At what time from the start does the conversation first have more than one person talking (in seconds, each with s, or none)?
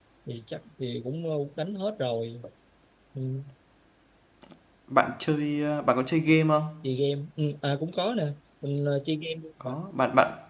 none